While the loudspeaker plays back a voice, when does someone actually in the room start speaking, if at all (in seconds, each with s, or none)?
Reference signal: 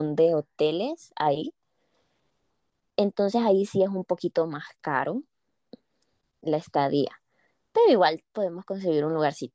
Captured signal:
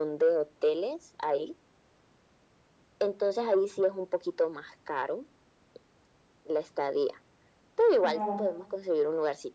8.0 s